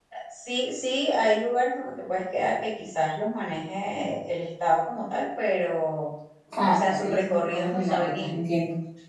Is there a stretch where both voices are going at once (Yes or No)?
Yes